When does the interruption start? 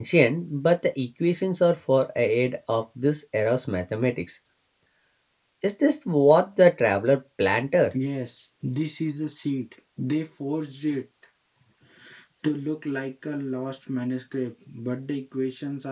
none

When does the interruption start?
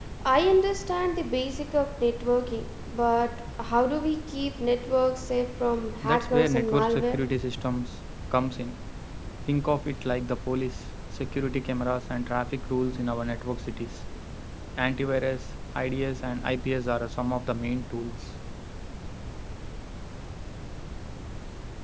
6 s

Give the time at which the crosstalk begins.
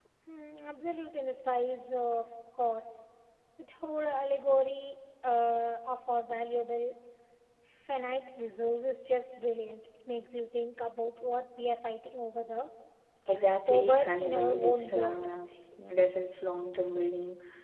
14 s

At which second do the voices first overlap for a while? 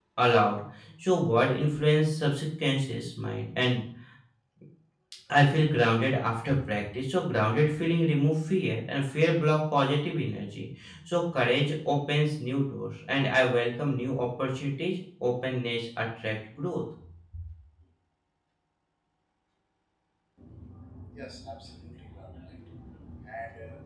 none

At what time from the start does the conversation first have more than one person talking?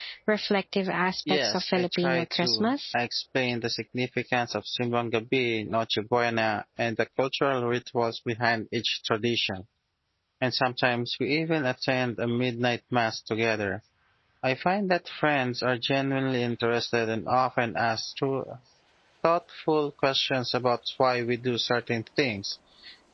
1 s

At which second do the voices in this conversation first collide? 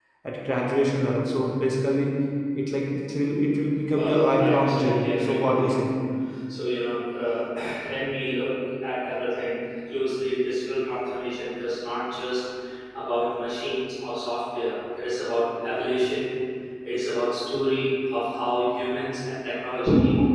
4 s

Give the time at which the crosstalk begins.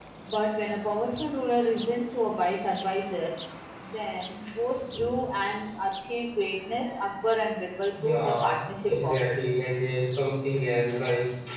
8 s

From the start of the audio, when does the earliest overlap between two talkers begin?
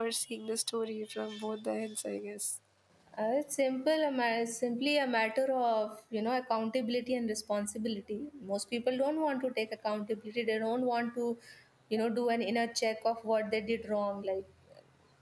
none

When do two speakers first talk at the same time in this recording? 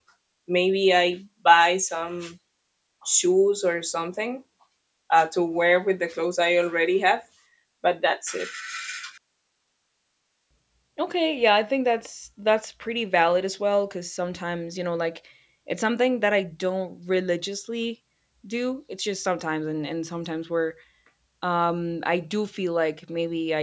none

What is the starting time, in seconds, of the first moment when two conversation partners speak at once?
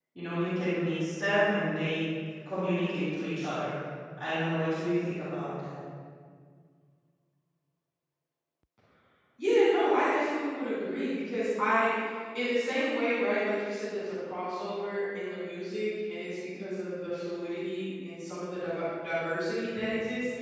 none

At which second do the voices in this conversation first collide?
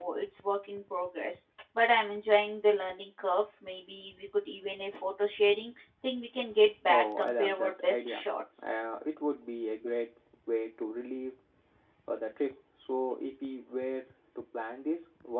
7 s

